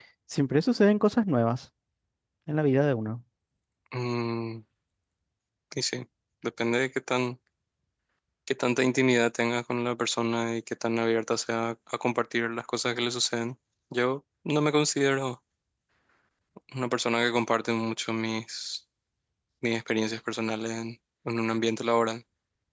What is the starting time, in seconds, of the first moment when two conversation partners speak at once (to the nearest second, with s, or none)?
none